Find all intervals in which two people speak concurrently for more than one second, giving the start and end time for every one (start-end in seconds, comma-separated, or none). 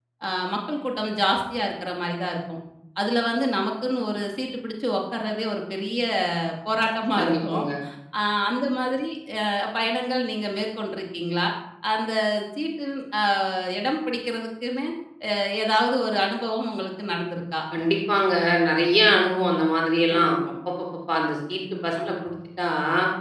none